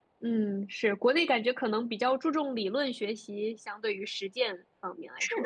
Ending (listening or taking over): taking over